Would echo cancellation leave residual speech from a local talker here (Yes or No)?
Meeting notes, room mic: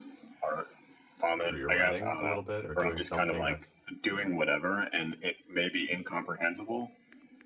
Yes